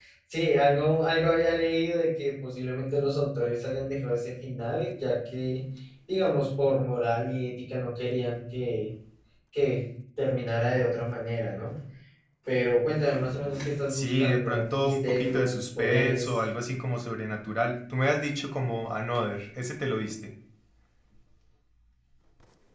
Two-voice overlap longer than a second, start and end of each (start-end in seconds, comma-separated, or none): 13.9-16.4